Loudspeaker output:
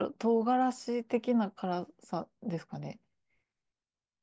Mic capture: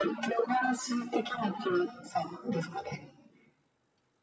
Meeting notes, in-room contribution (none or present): none